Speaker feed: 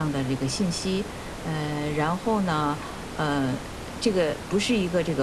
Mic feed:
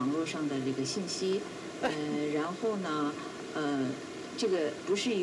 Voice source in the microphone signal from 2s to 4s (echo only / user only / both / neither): echo only